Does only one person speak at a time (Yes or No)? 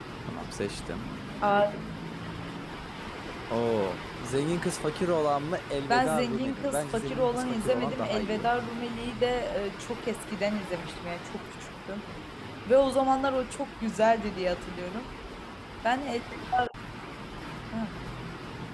No